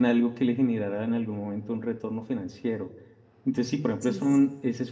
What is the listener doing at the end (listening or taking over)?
listening